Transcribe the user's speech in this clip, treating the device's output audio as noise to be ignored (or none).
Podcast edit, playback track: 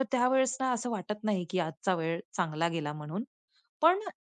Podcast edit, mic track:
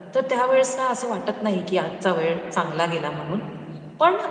none